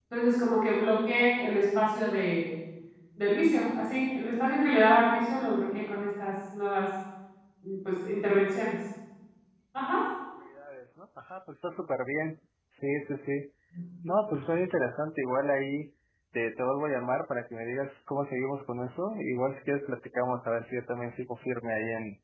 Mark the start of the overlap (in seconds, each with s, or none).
none